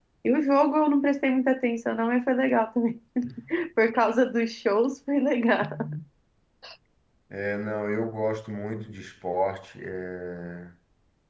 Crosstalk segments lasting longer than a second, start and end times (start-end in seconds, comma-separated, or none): none